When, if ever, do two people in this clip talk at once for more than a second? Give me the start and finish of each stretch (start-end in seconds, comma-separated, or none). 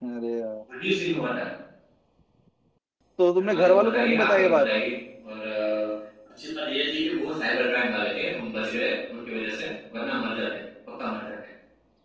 3.4-4.7